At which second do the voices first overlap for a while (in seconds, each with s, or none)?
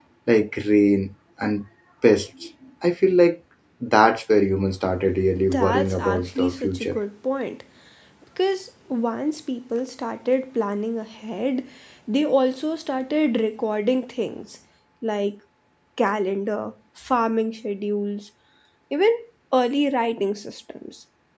5.5 s